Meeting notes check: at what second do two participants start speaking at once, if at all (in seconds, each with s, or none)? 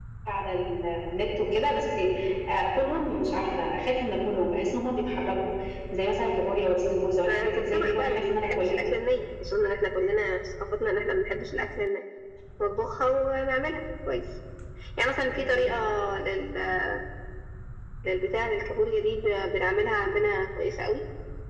7.2 s